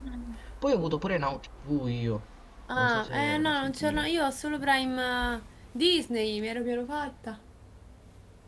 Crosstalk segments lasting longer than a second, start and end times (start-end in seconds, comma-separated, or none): 2.7-4.1